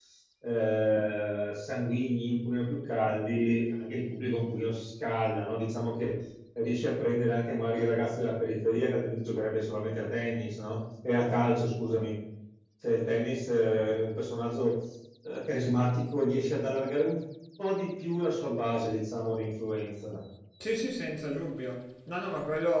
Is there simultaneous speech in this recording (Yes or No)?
No